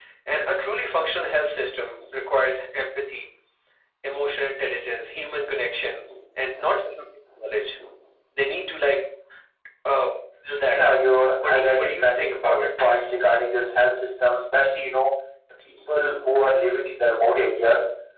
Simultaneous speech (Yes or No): Yes